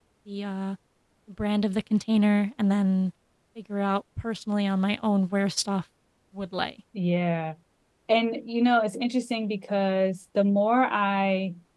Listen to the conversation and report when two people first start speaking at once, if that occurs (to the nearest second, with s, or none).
none